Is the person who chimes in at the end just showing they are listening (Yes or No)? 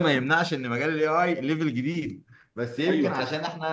Yes